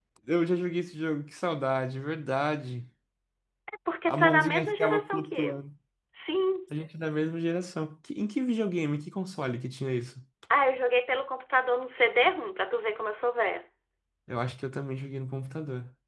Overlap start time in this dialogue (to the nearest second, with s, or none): 4 s